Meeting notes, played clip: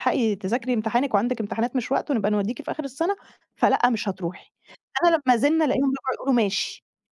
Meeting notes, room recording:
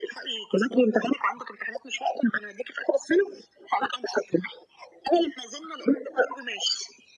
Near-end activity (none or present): none